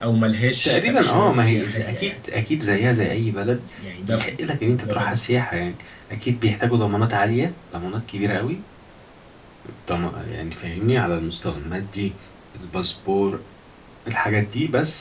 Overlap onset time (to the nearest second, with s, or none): 1 s